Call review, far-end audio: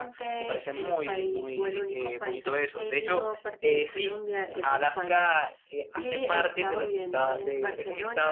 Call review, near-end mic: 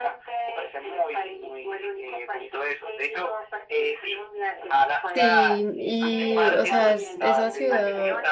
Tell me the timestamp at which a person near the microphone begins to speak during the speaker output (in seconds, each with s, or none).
5.1 s